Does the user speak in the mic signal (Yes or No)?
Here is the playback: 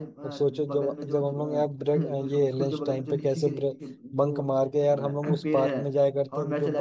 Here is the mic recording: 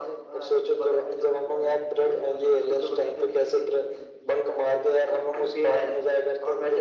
No